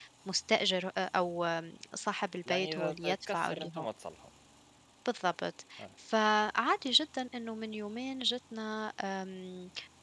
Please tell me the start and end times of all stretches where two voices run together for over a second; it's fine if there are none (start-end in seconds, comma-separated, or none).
2.5-3.9